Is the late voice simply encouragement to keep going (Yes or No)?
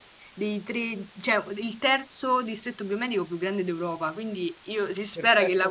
Yes